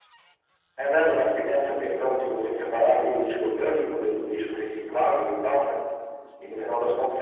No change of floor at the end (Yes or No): Yes